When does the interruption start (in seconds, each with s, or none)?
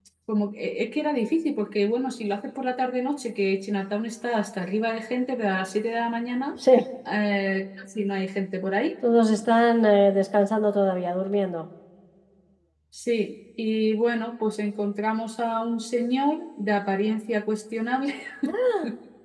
none